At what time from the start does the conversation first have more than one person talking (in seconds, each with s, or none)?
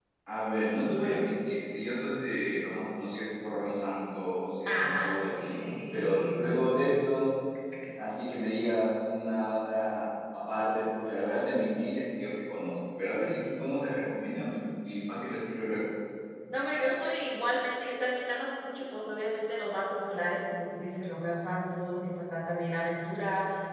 4.6 s